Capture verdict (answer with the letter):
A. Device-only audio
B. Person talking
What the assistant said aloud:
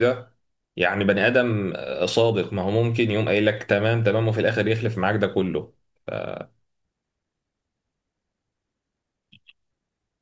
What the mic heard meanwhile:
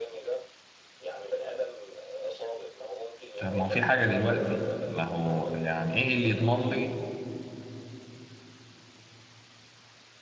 B